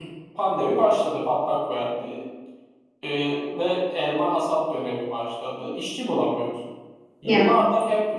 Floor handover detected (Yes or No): No